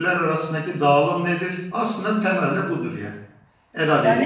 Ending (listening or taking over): taking over